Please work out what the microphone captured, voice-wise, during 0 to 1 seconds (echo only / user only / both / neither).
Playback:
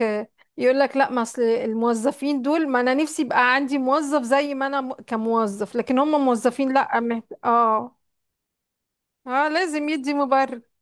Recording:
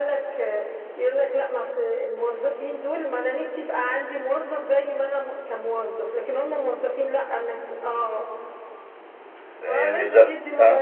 echo only